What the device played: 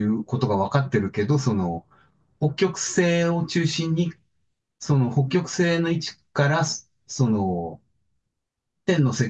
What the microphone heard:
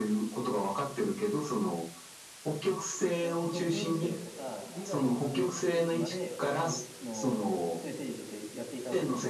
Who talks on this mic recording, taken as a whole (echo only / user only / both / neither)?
both